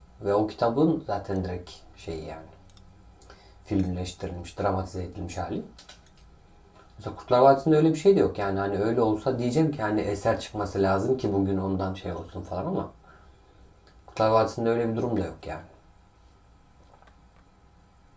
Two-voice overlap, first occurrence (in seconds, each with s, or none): none